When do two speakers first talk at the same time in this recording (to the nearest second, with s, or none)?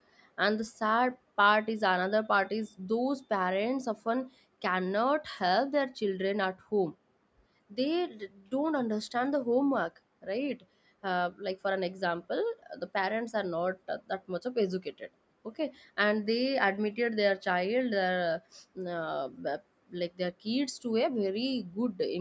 none